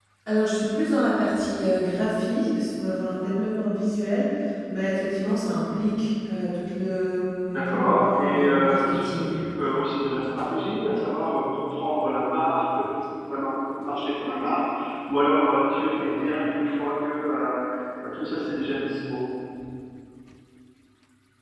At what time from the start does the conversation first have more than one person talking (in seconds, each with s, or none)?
7.5 s